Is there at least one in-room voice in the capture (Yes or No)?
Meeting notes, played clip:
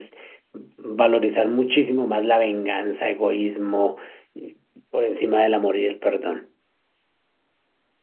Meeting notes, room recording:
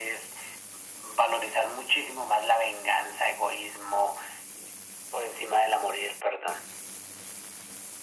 No